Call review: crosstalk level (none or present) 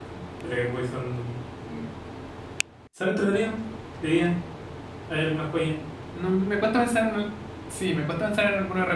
none